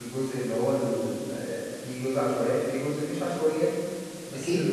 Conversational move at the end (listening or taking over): taking over